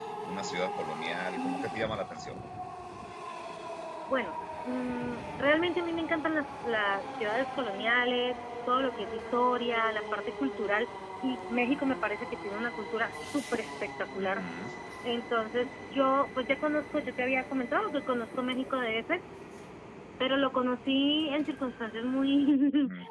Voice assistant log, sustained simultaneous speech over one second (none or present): none